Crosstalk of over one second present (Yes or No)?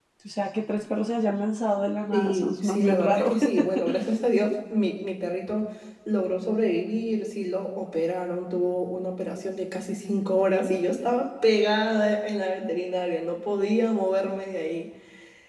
Yes